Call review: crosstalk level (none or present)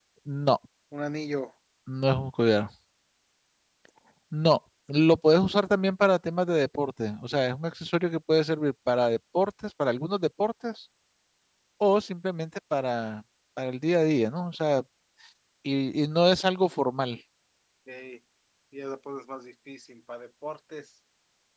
none